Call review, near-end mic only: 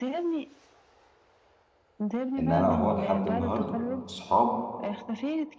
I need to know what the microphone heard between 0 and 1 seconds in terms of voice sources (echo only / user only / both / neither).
echo only